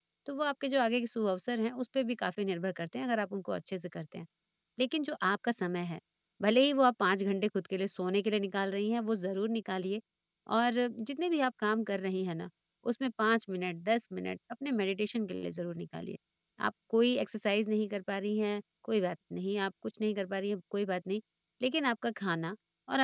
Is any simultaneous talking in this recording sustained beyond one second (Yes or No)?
No